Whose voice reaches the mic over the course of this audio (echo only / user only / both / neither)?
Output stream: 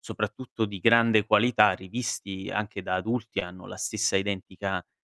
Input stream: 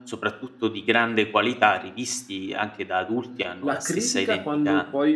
both